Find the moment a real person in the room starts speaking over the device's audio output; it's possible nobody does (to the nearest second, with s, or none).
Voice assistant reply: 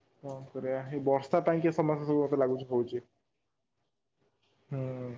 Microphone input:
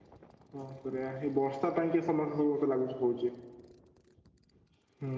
none